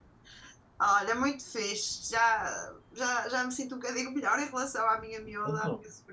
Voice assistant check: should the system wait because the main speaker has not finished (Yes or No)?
Yes